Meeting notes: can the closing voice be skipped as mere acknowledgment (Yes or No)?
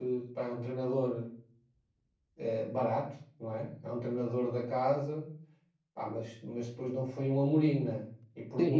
No